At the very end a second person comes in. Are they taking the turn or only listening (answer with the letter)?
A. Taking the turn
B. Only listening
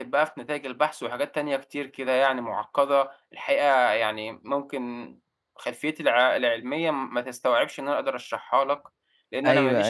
A